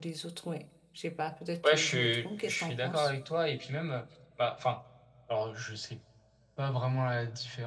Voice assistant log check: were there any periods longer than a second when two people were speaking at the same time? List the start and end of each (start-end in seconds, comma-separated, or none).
1.6-3.1